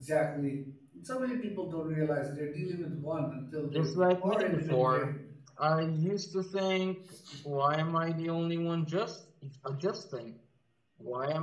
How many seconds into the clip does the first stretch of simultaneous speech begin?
3.7 s

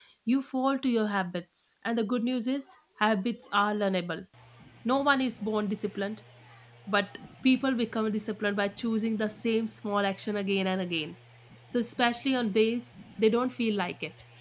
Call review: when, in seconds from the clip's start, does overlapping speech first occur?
none

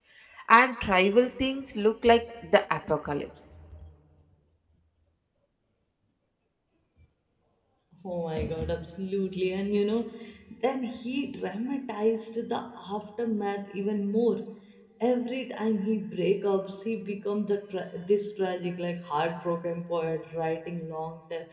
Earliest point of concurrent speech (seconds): none

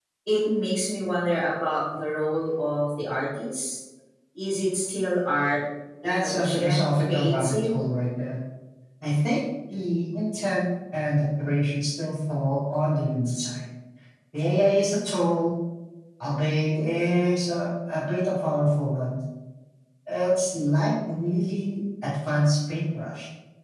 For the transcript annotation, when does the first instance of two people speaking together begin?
6.0 s

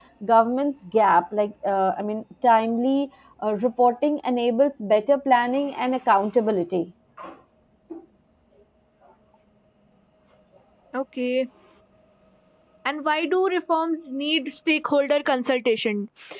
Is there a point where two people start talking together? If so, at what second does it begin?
none

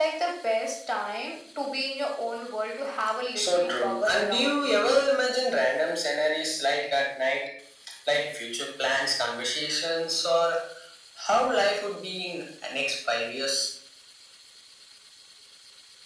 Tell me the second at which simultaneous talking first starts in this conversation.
3.4 s

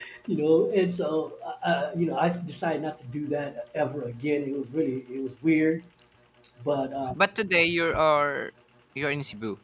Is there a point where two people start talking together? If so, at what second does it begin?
none

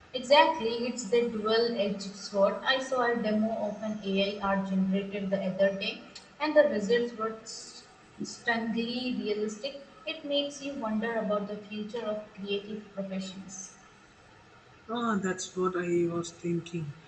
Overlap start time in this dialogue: none

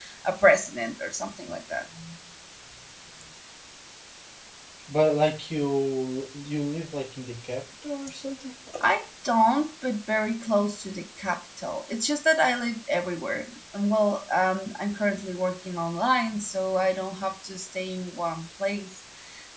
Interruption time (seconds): none

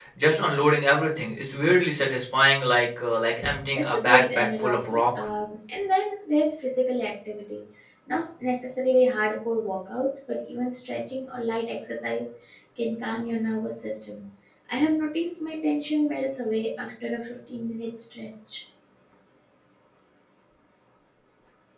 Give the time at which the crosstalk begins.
3.7 s

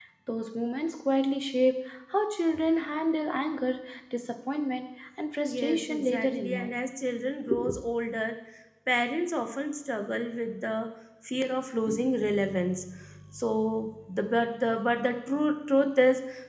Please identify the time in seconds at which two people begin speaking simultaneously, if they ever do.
5.5 s

